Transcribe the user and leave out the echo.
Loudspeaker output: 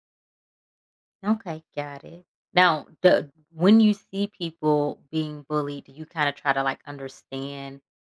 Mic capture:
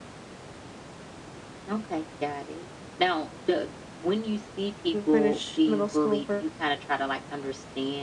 didn't finish middle school for

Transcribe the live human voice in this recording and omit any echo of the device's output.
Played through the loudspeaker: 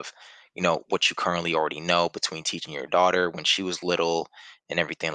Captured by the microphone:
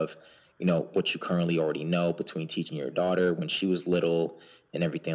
none

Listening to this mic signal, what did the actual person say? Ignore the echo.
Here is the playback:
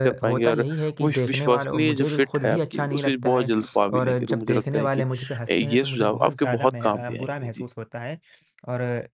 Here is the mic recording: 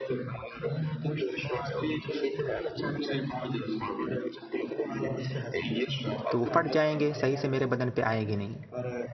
तो वो फट जाएँगे, सही से मेरे बदन पे आएँगे नहीं।

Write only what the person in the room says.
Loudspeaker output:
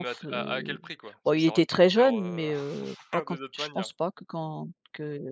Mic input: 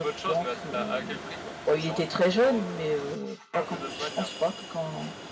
none

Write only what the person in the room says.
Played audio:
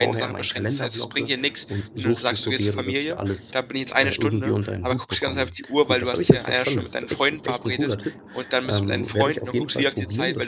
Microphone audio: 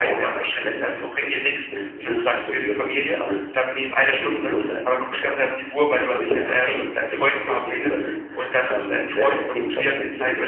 none

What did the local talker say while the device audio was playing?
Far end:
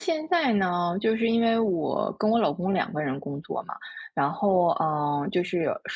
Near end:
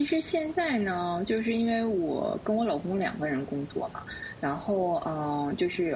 none

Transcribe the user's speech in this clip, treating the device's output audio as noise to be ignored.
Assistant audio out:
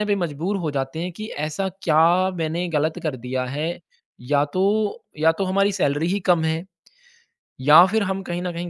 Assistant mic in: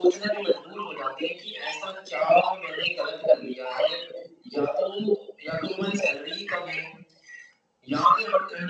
none

